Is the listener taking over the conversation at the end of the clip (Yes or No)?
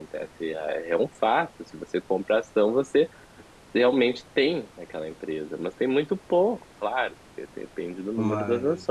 No